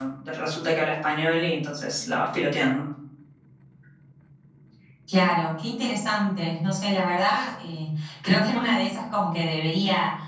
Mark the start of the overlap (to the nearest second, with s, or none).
none